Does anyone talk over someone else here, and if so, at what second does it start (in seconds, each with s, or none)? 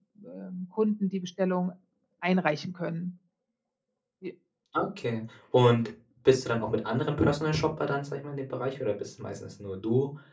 none